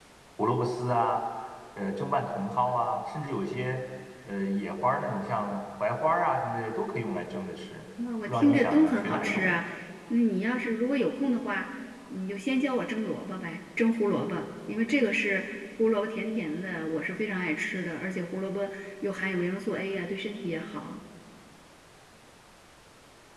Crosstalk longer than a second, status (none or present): present